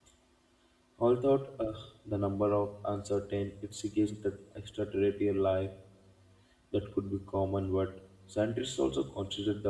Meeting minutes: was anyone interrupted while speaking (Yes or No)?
No